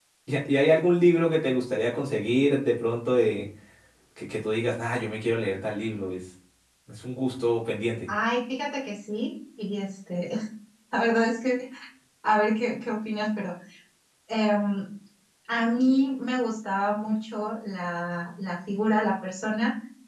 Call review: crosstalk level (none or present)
none